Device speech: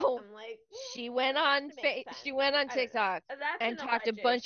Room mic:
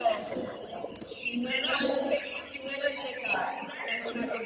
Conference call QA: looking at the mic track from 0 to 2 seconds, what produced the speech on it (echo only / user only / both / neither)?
echo only